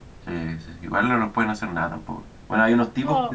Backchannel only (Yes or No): Yes